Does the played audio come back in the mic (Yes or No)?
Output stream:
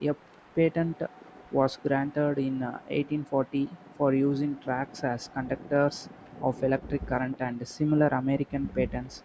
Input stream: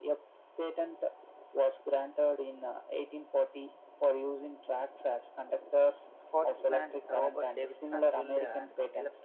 Yes